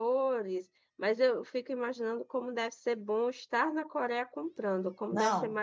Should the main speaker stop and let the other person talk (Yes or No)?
Yes